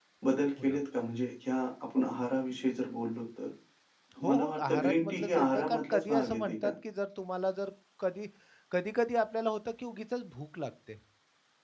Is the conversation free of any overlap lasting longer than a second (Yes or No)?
No